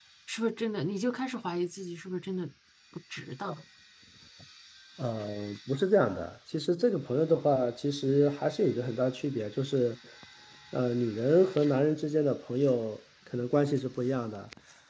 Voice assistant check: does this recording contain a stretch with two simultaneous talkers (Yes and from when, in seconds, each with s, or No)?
No